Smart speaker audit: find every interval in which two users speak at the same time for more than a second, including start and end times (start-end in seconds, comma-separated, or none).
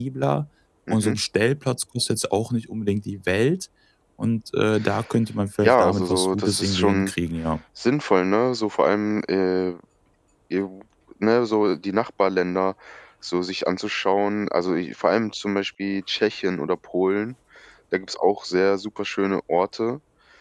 5.6-7.1